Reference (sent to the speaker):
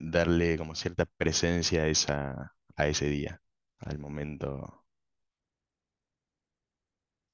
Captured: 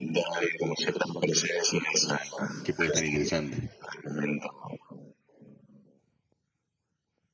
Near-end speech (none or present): present